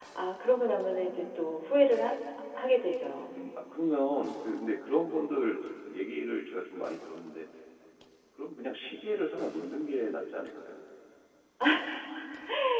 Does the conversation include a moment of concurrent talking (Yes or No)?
No